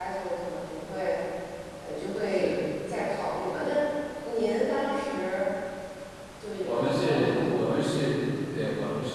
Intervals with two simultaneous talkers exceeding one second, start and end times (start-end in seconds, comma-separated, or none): 6.6-7.9